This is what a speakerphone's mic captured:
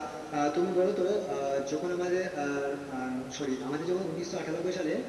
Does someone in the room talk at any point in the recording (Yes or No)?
No